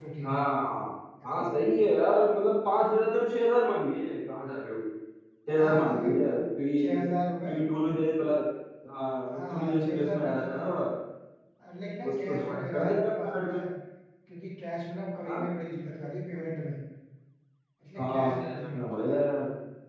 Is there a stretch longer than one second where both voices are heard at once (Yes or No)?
Yes